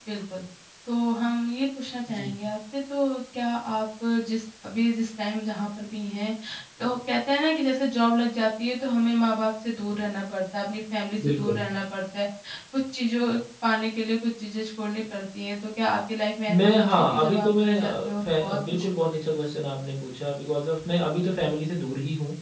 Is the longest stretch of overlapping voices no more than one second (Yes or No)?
No